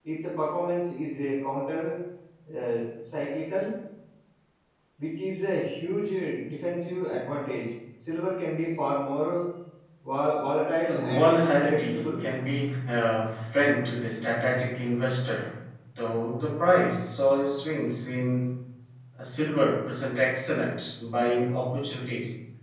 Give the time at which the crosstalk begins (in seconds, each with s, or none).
10.8 s